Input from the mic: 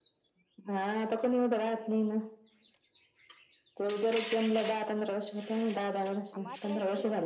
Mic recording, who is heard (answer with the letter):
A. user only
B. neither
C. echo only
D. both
D